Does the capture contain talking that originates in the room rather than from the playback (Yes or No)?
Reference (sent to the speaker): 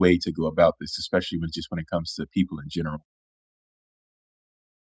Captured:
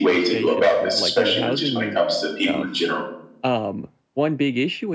Yes